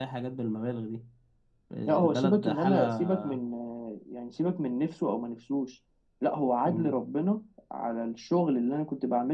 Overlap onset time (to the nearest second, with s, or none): 2 s